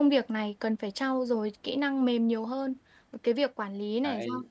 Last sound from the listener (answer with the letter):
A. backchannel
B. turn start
A